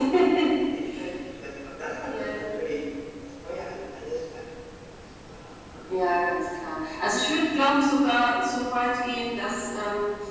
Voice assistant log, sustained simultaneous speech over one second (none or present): none